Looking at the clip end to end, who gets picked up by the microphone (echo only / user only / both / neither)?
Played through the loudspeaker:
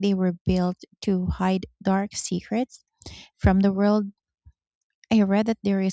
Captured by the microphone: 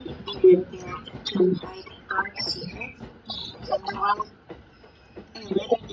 echo only